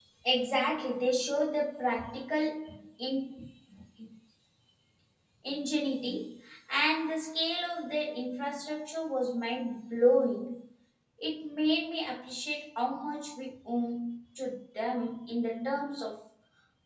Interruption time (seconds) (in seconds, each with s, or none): none